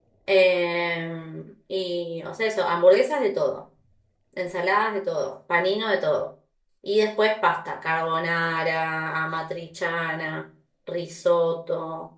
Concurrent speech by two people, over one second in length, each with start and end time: none

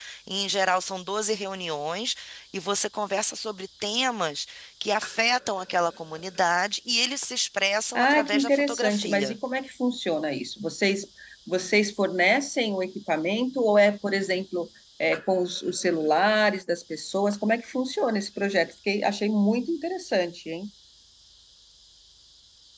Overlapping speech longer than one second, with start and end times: 8.0-9.4

